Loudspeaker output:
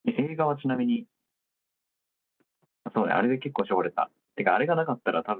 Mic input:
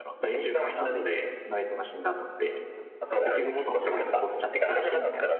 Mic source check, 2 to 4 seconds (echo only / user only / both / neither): both